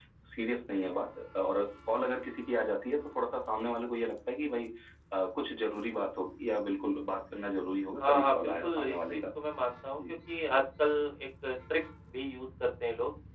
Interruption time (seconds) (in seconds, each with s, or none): 8.0 s